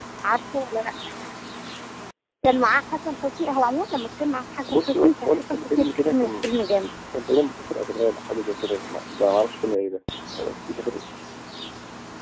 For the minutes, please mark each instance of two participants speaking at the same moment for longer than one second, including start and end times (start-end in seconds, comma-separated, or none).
4.7-6.4